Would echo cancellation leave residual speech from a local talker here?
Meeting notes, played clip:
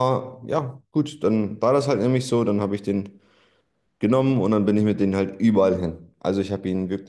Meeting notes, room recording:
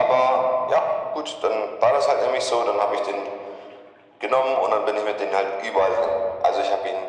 No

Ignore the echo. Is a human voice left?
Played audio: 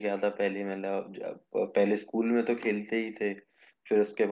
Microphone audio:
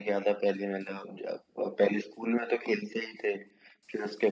No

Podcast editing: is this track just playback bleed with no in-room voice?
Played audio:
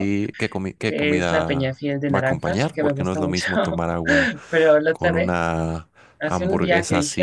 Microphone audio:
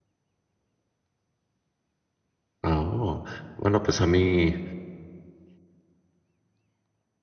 No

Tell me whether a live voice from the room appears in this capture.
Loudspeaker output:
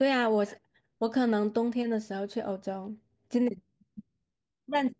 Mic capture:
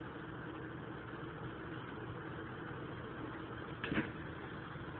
No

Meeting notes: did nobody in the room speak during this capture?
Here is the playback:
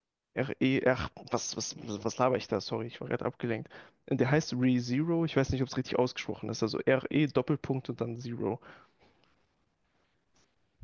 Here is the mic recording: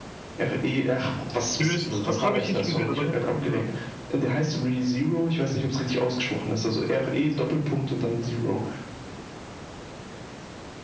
No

